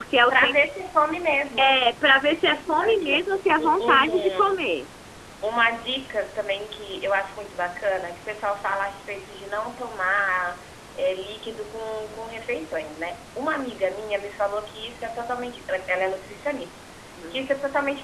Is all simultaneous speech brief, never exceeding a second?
No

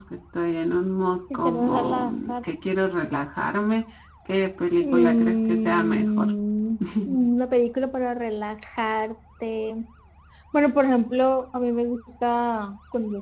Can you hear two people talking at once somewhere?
Yes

